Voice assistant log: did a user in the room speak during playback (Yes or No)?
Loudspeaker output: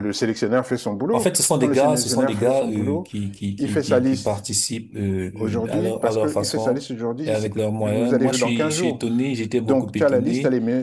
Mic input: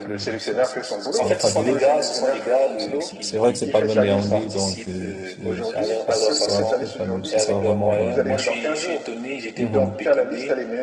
Yes